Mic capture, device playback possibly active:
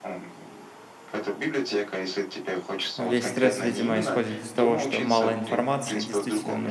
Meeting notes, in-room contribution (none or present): present